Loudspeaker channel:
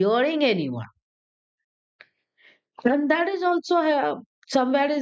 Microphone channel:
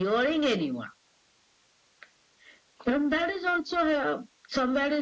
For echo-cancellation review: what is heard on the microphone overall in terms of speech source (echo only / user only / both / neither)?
echo only